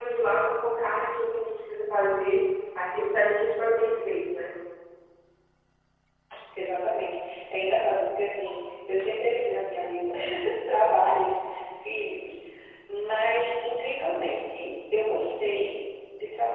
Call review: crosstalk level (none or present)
none